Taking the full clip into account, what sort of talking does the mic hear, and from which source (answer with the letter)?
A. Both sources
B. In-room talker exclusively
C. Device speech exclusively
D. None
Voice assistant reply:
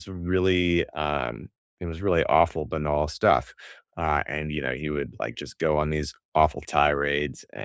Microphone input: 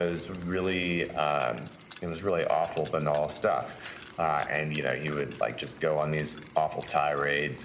C